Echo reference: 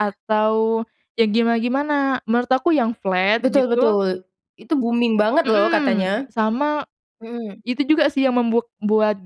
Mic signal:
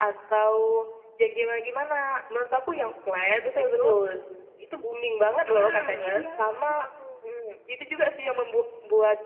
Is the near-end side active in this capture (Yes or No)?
Yes